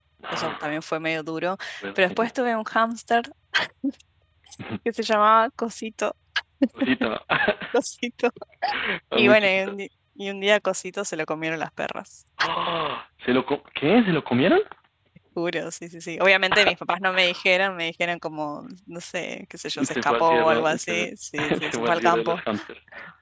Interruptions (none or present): present